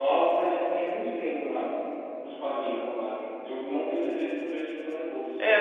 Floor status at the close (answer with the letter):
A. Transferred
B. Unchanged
A